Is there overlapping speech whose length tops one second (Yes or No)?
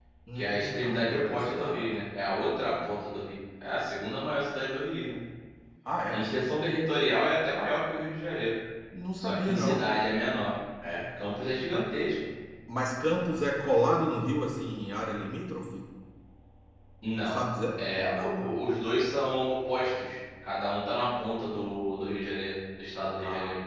Yes